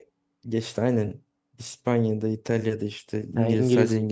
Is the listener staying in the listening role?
Yes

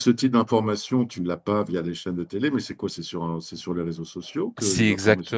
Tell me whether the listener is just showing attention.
No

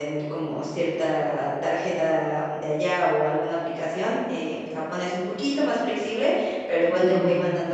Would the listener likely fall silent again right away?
Yes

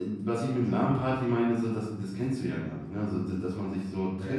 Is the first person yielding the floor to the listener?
No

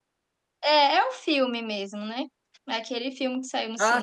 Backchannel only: No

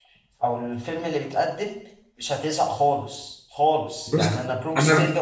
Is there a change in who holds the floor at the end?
No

